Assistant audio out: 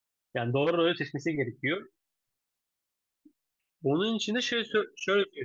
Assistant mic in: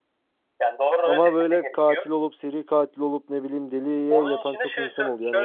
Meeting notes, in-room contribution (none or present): present